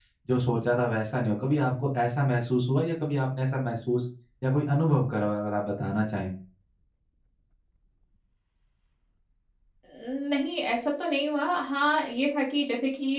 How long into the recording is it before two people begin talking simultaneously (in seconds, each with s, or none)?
none